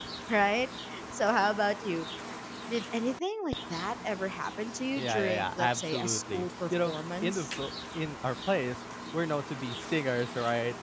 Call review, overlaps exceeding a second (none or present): present